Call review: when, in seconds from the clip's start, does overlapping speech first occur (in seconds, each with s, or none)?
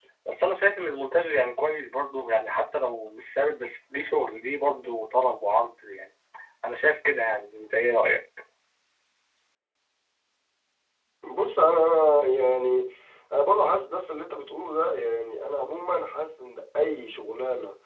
none